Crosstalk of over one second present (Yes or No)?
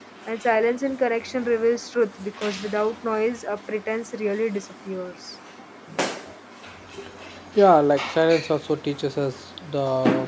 No